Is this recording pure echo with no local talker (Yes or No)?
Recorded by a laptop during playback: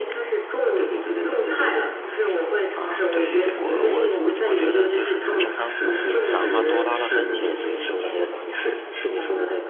No